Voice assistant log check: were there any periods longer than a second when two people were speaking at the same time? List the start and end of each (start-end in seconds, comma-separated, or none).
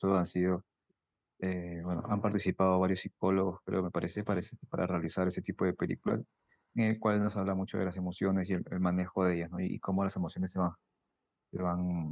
none